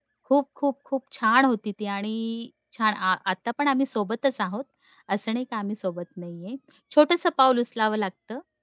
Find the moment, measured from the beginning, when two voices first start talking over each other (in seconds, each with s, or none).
none